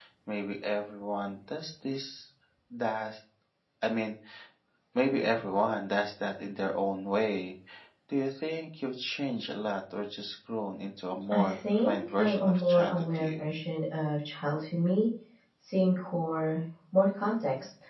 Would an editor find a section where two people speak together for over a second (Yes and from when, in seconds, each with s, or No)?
Yes, from 11.3 s